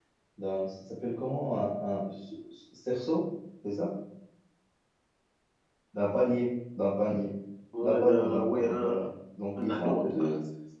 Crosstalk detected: Yes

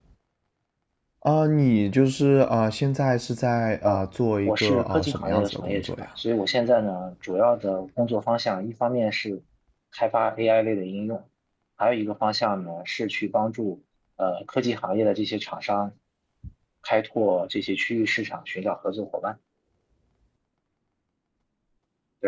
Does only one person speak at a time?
No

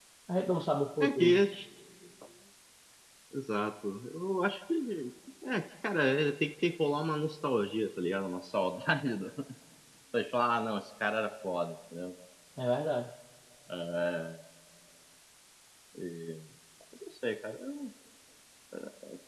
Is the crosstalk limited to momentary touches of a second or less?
Yes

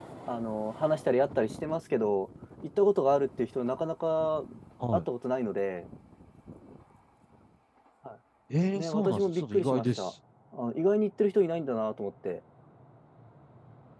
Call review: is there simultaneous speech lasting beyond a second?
Yes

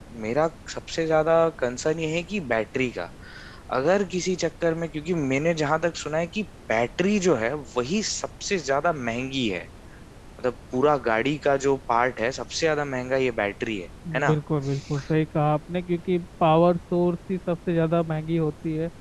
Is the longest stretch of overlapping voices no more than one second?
Yes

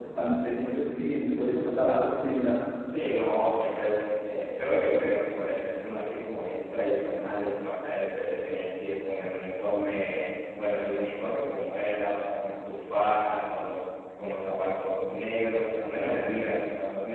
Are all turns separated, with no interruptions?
Yes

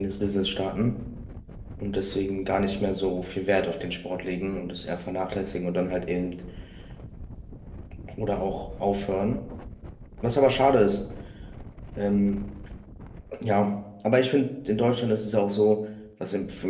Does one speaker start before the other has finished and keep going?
No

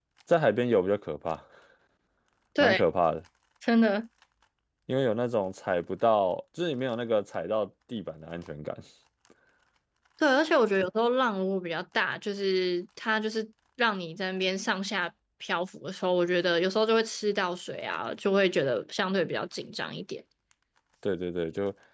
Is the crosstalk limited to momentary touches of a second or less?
Yes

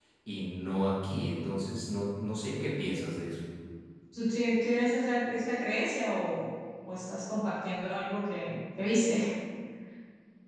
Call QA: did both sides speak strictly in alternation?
Yes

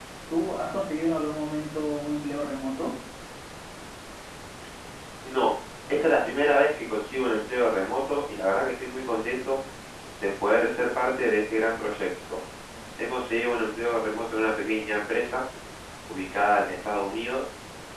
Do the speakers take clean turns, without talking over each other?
Yes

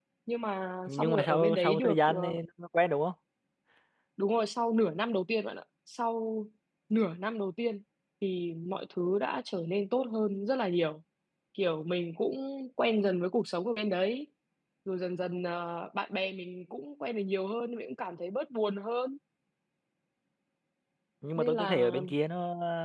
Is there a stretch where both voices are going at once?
Yes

